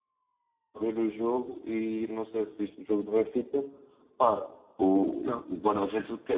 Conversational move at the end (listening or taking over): listening